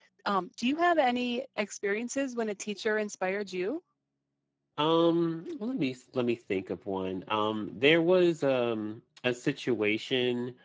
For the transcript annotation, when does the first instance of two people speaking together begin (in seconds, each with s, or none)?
none